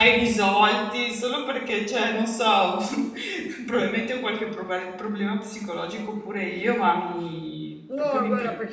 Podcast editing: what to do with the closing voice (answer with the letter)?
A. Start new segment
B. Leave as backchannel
A